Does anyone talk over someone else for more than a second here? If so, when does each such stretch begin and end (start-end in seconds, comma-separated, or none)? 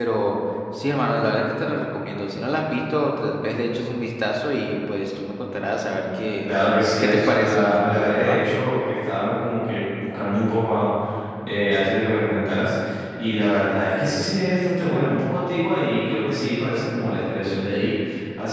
7.0-8.4